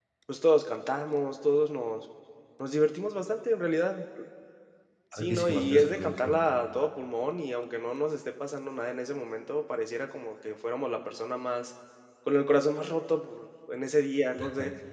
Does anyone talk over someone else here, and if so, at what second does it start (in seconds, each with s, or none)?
5.1 s